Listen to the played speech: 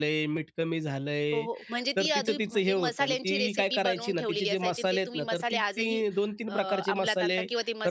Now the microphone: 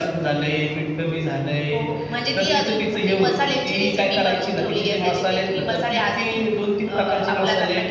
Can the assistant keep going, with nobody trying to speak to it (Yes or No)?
Yes